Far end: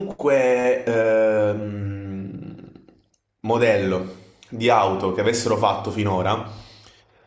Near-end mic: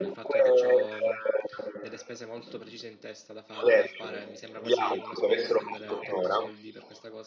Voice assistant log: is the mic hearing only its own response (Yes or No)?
No